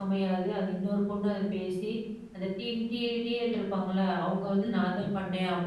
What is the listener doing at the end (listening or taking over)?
listening